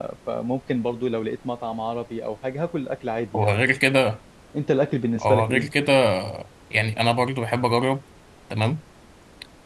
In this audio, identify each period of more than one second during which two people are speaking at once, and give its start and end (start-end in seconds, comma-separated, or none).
none